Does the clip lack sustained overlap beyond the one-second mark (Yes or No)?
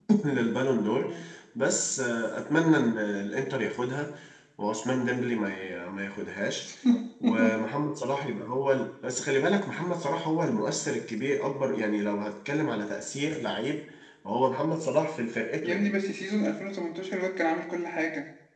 Yes